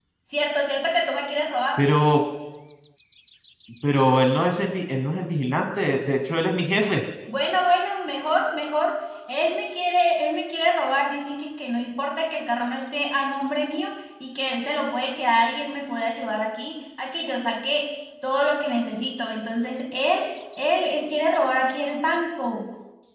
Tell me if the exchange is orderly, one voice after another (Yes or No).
Yes